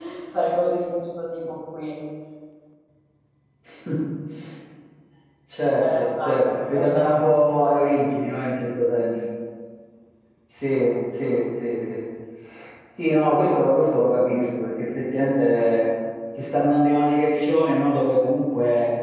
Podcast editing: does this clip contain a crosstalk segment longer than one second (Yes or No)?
Yes